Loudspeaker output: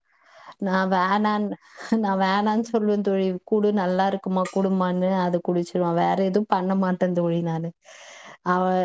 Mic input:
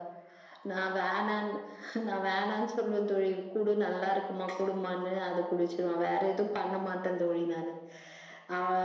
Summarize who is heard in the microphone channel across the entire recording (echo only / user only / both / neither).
echo only